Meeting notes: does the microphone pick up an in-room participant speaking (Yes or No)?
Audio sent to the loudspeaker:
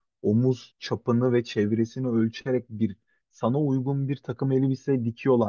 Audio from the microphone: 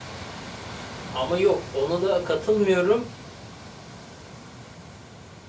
Yes